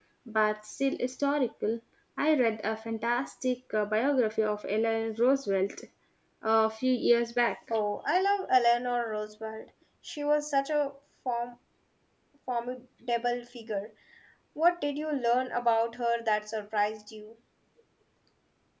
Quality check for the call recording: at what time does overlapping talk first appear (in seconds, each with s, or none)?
none